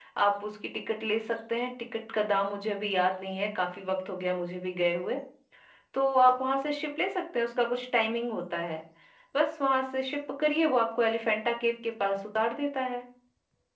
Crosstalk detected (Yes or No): No